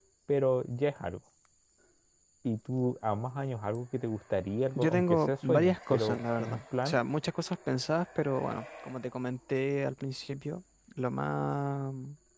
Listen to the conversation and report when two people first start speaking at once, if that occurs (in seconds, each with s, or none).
4.8 s